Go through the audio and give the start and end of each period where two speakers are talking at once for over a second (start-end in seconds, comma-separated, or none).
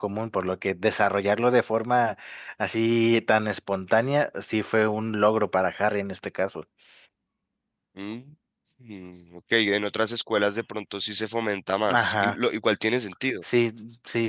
none